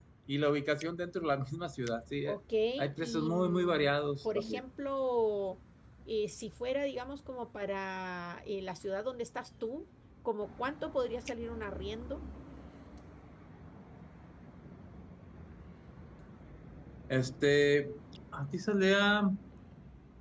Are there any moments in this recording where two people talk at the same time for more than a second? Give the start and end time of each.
3.0-4.6

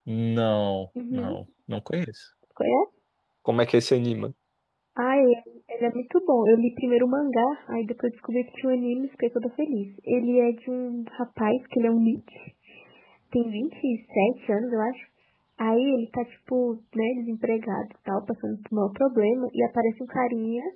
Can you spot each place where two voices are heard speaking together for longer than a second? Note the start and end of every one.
none

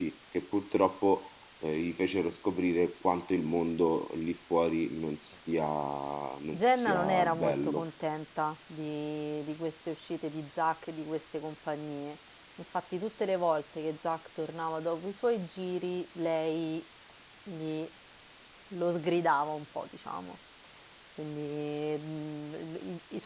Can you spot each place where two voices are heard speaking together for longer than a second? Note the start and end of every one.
6.5-7.8

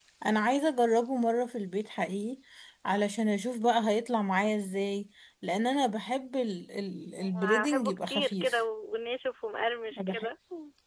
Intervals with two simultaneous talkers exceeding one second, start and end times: 7.2-8.6

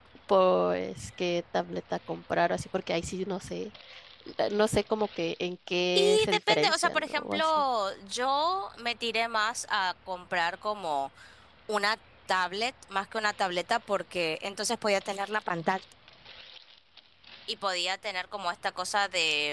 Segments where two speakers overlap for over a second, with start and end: 6.0-7.4

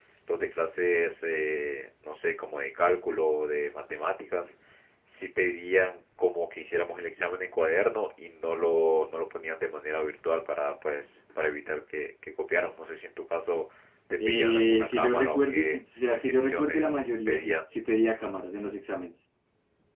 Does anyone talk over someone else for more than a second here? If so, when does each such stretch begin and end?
14.2-17.6

